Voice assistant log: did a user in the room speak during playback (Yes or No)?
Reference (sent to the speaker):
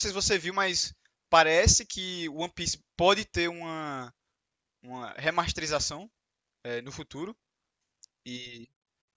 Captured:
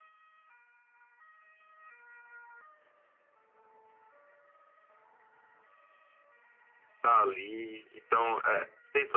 Yes